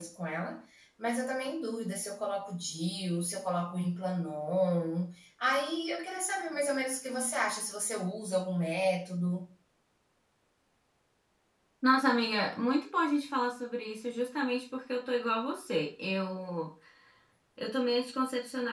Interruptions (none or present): none